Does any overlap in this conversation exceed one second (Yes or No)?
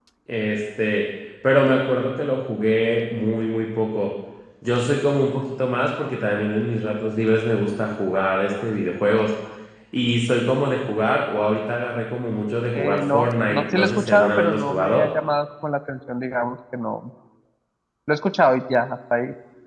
Yes